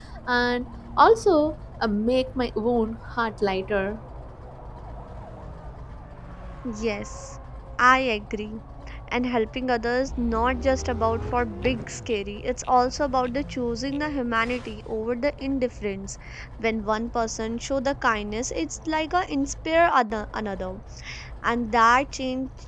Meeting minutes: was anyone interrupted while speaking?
No

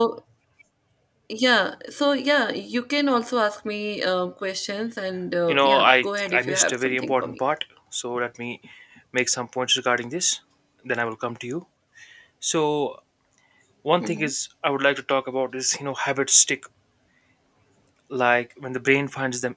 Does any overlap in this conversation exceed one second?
Yes, from 5.5 s

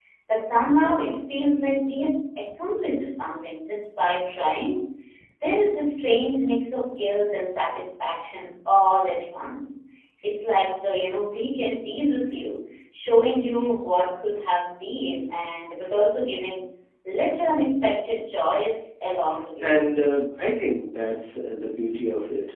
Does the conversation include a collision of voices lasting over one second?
No

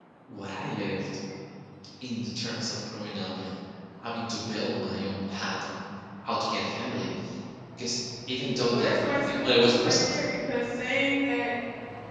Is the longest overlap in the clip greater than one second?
Yes, from 8.7 s

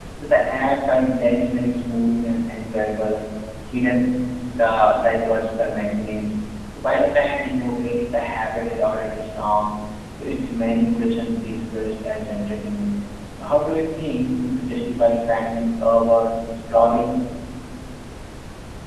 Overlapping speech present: No

